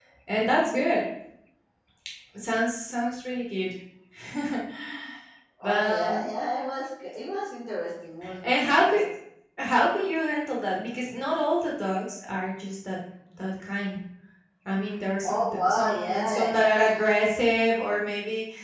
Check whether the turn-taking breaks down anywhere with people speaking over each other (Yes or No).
Yes